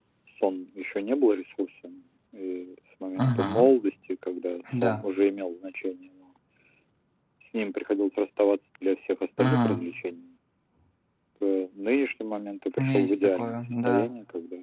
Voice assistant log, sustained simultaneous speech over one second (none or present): present